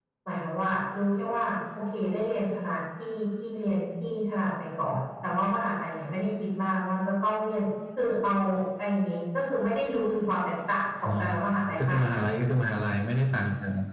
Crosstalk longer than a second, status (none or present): none